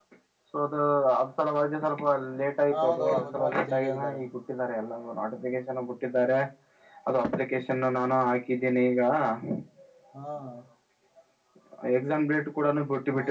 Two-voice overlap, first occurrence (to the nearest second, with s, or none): 3 s